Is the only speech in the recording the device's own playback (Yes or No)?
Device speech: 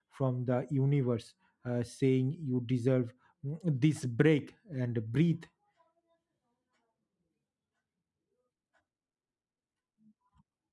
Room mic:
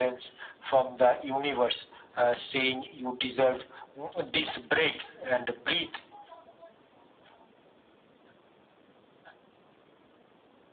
Yes